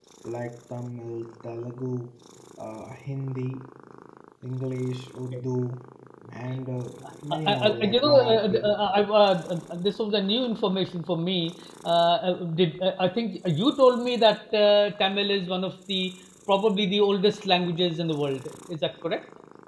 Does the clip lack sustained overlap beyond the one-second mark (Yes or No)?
No